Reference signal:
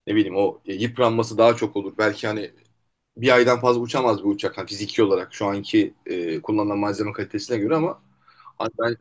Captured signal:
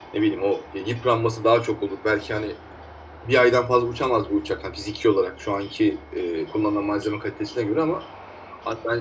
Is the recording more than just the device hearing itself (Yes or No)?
No